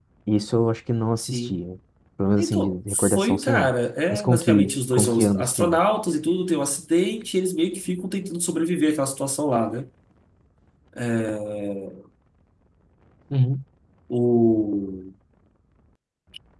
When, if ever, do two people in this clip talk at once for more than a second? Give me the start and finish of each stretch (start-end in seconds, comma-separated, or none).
2.4-3.7, 4.1-5.8